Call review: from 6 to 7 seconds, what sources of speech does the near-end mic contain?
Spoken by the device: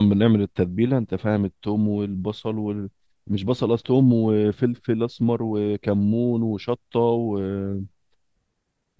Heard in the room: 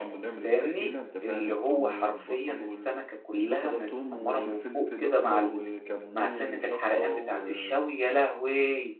both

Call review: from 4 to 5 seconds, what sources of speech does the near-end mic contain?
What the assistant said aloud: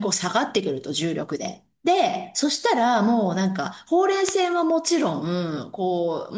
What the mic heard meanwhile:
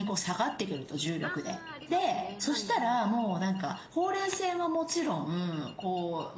echo only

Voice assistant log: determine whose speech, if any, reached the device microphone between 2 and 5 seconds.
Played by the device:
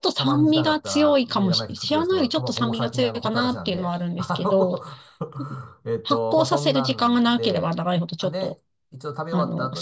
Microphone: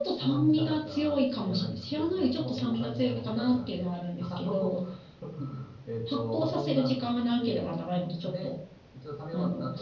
echo only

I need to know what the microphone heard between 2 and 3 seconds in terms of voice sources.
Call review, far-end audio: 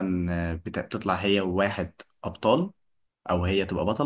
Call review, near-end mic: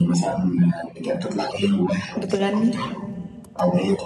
both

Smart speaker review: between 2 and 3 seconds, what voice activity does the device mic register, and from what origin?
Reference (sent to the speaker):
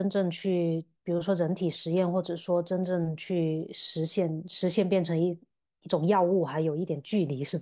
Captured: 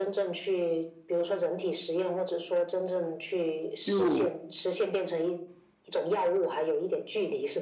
echo only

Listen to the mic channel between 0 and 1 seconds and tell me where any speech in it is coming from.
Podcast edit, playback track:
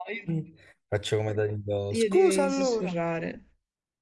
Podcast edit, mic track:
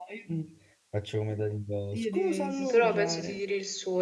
echo only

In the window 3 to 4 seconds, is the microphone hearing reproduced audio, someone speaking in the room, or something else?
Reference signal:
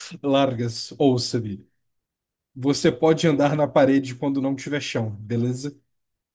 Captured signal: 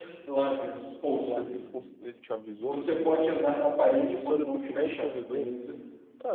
both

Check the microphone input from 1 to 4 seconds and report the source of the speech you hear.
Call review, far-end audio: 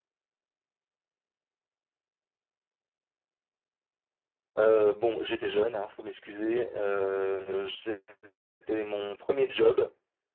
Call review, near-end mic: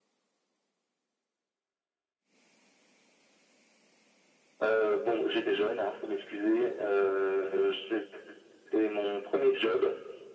neither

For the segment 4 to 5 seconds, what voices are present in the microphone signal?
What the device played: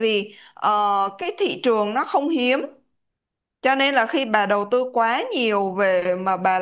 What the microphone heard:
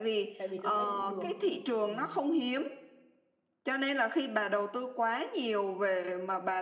echo only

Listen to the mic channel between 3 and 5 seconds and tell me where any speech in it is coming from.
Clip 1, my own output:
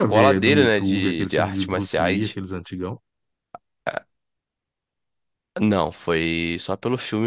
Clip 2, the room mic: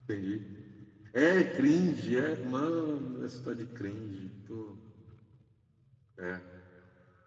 user only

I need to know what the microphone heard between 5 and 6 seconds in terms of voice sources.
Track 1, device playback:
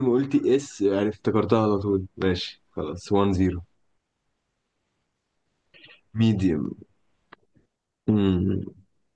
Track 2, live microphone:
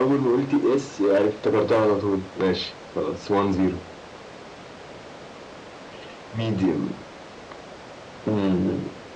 neither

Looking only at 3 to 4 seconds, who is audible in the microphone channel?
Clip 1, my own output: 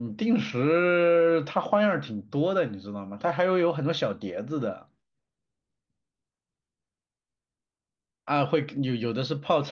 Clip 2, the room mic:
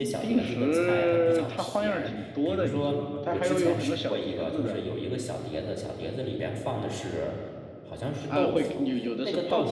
both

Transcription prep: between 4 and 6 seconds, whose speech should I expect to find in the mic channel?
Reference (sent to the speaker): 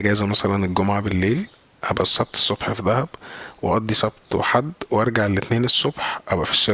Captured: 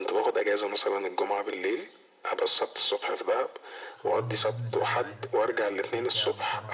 both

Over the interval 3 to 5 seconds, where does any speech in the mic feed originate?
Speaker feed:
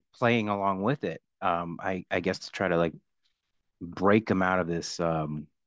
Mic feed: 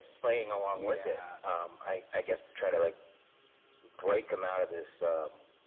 echo only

